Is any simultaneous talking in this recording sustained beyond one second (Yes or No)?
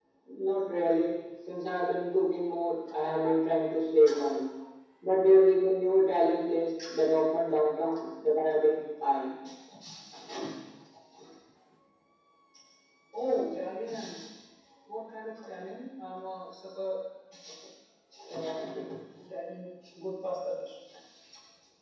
No